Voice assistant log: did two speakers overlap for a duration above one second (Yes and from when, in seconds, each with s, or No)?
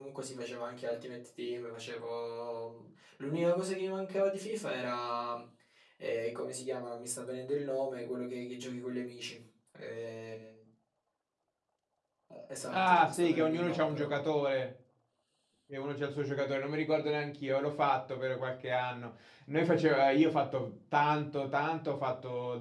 Yes, from 12.7 s